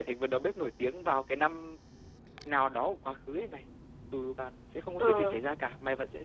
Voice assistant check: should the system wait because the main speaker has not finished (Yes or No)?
Yes